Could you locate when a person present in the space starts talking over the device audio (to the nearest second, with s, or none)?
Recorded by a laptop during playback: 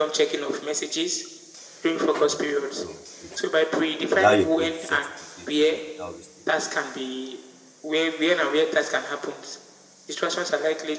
2 s